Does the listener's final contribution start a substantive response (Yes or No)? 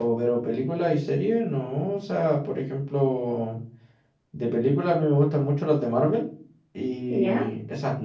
No